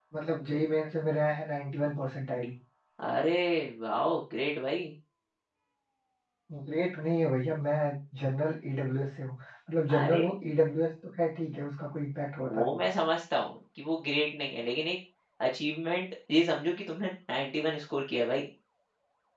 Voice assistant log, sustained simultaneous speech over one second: none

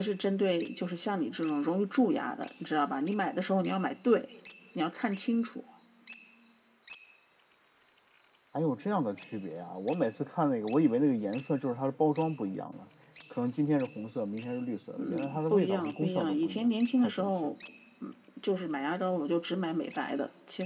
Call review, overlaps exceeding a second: present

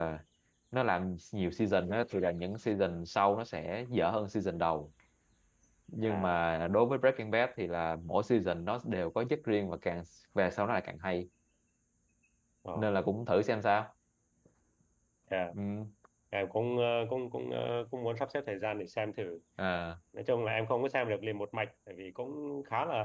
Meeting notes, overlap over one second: none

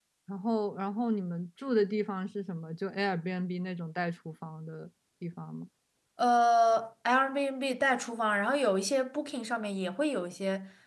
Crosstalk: none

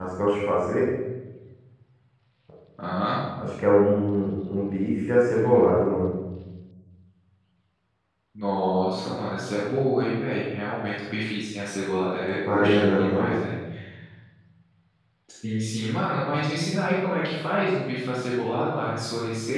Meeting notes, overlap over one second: present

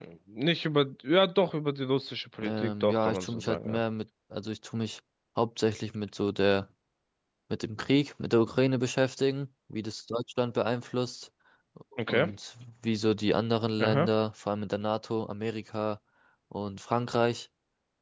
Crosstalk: present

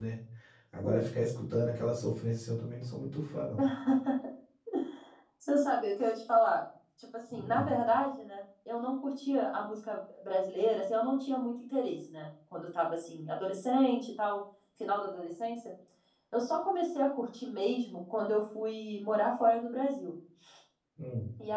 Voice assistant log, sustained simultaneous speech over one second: none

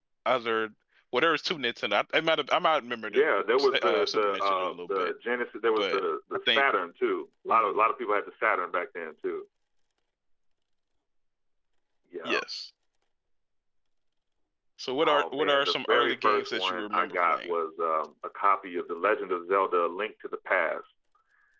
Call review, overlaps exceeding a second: present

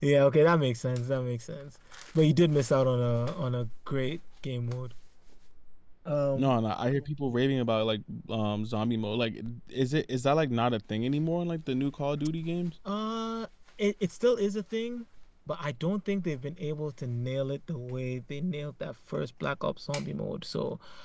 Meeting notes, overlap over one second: none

